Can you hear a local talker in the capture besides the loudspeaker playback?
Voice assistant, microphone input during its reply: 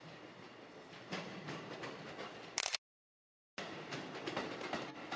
No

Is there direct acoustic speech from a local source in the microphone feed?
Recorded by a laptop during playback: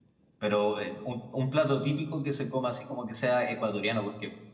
Yes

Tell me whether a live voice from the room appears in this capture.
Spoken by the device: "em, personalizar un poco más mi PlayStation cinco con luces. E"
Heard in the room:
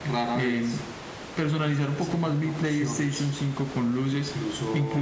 Yes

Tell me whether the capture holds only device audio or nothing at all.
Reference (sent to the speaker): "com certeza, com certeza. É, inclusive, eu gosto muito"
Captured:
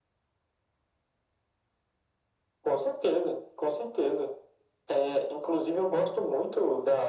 Yes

